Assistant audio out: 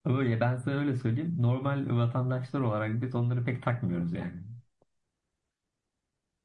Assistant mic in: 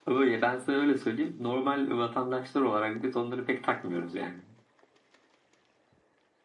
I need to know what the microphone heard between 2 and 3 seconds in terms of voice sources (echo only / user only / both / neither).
echo only